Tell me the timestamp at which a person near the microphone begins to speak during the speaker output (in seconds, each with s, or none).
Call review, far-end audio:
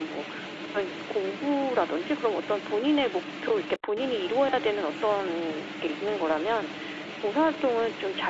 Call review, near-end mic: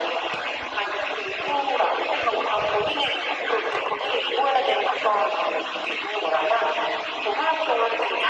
none